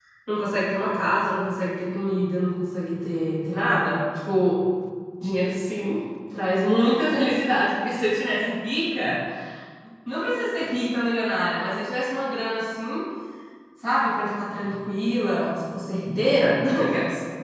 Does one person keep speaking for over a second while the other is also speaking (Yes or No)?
No